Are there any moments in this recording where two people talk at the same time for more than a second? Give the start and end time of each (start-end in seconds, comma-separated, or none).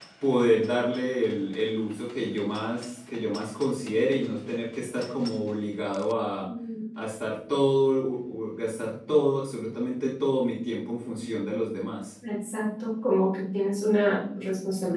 none